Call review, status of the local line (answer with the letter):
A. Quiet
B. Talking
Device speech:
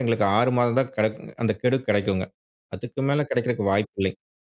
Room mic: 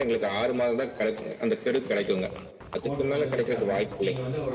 B